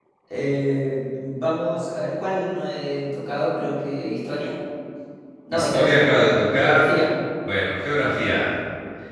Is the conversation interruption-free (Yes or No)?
No